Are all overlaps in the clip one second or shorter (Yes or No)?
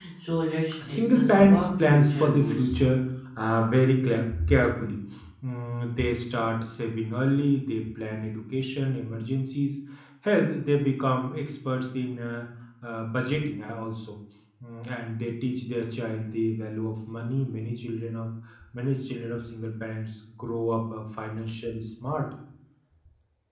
No